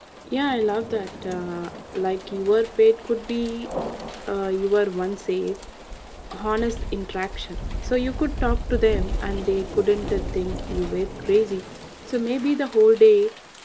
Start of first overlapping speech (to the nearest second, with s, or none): none